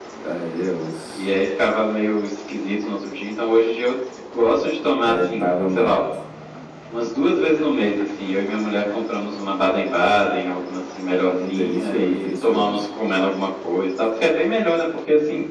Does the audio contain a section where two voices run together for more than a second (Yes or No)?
Yes